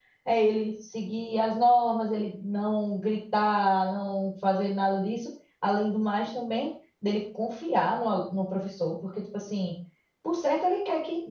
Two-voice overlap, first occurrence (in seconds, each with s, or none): none